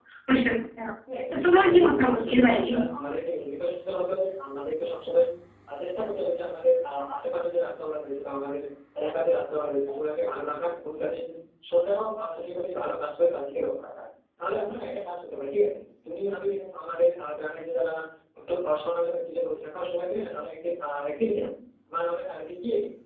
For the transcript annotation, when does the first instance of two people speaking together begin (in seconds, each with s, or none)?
1.1 s